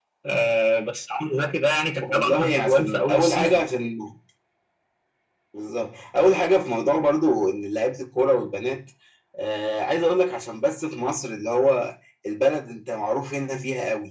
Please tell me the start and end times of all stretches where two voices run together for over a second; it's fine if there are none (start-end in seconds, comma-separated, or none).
2.0-3.6